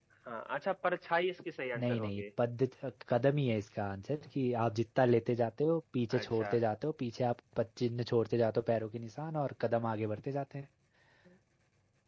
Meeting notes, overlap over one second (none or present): none